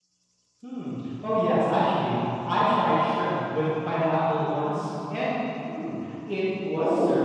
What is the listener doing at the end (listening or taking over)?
listening